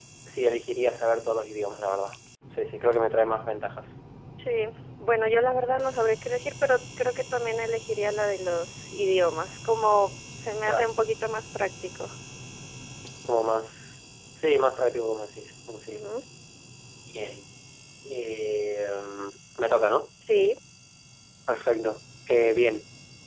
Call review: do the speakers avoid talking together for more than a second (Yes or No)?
Yes